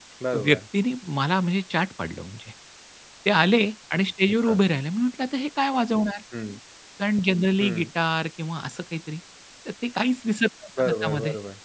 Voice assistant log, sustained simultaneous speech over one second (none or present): none